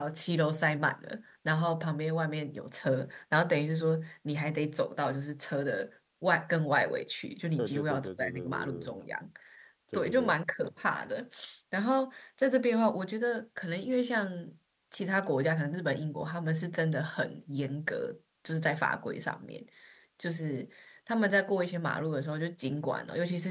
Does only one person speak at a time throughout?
No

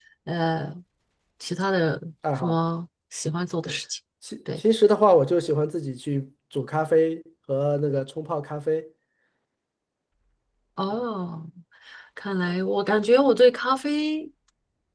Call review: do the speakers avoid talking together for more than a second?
Yes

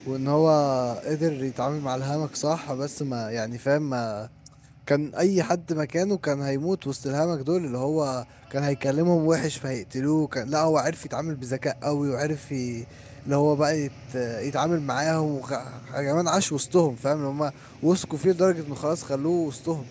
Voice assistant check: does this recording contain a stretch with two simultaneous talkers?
No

